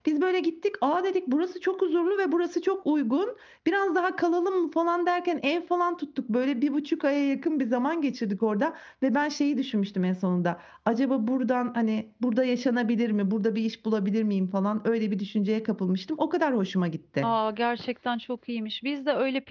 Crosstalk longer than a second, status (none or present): none